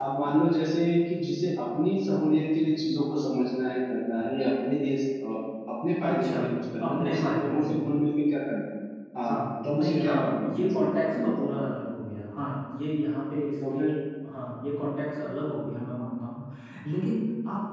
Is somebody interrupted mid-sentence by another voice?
Yes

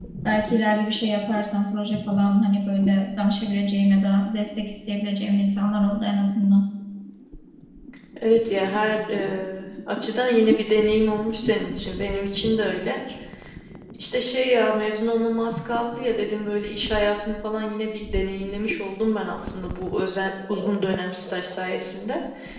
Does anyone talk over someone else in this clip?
No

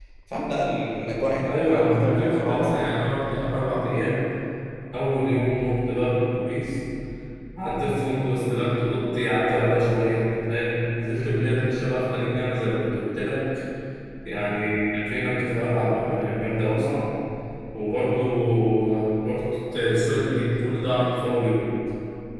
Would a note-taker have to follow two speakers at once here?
Yes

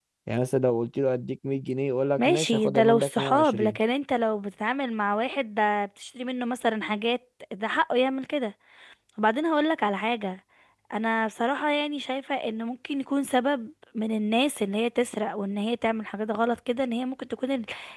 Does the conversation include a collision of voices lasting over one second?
Yes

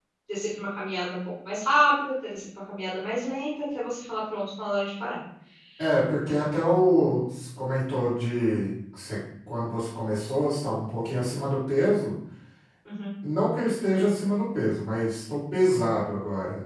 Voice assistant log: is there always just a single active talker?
Yes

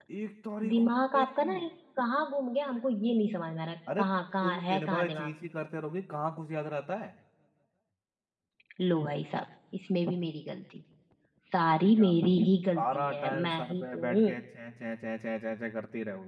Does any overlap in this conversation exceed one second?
Yes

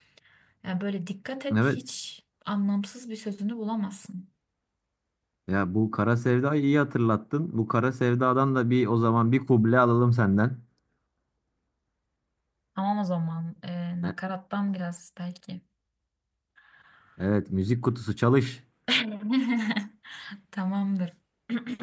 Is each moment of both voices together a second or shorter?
Yes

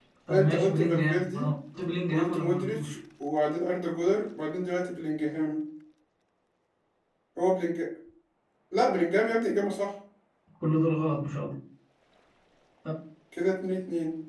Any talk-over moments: Yes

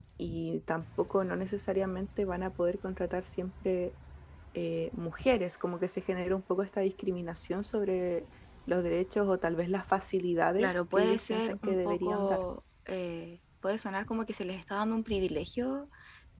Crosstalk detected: Yes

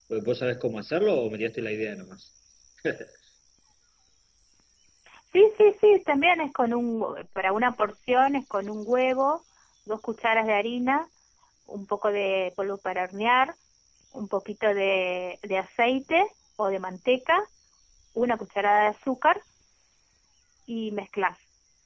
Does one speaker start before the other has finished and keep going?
No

